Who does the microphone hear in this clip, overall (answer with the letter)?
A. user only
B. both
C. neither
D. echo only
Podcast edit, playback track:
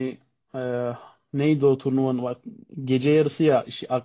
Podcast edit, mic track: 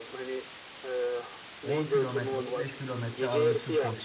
B